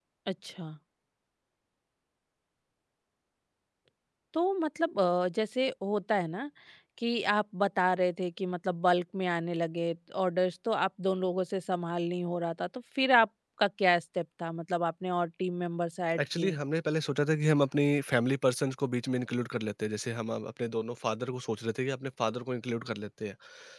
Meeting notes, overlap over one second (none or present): none